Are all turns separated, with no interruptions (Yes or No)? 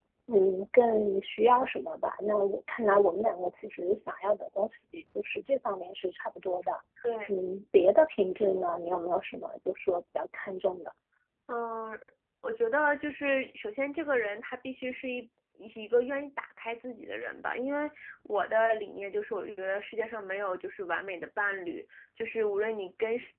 Yes